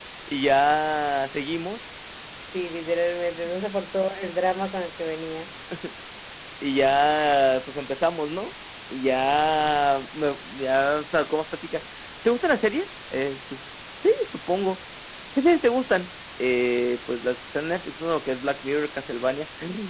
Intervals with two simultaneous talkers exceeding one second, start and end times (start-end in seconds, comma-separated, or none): none